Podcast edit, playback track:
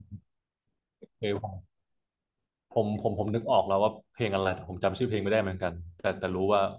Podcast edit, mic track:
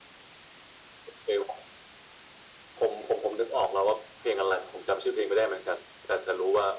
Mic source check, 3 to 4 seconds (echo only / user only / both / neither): echo only